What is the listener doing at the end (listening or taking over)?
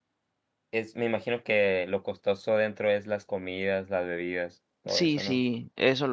taking over